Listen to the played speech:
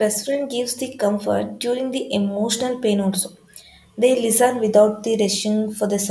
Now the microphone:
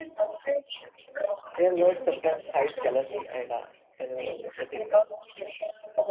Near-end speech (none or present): present